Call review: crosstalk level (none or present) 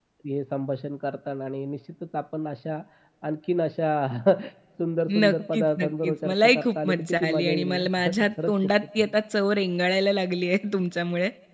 present